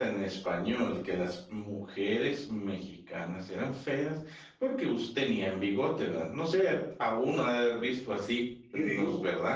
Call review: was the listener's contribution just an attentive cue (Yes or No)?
Yes